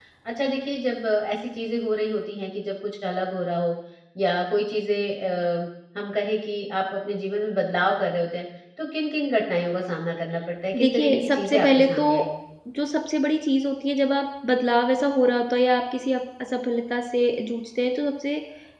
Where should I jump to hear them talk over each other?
10.7 s

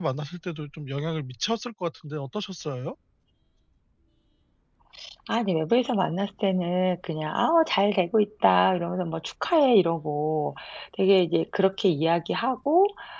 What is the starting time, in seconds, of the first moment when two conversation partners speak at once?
none

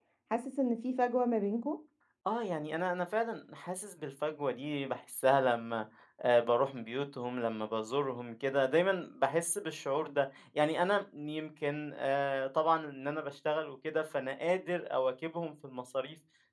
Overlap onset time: none

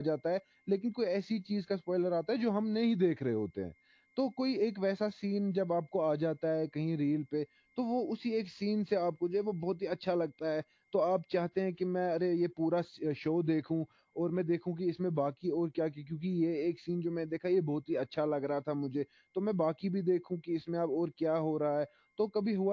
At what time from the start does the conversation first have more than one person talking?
none

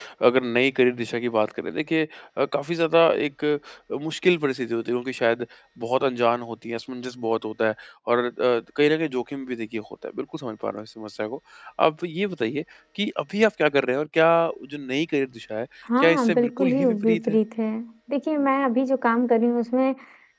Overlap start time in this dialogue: 15.9 s

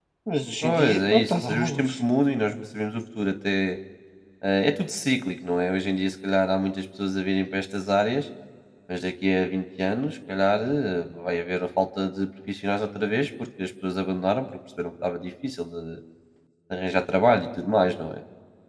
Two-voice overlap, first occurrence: 0.6 s

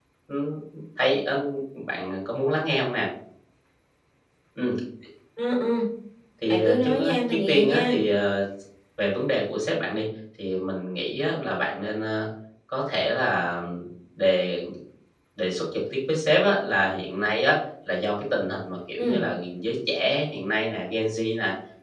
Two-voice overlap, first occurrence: 6.5 s

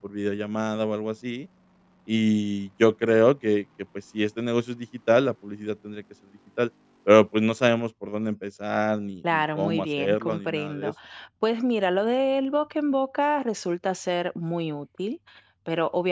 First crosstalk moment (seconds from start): 9.2 s

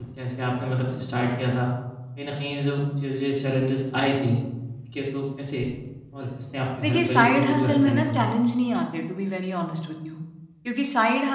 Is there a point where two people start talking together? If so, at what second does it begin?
6.8 s

